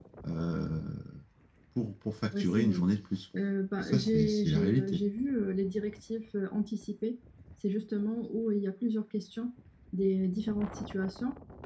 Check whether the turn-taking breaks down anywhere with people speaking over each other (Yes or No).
Yes